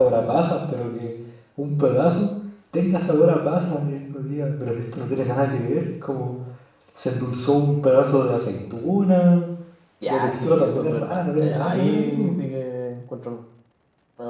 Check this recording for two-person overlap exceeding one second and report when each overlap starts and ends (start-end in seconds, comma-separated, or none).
10.1-12.3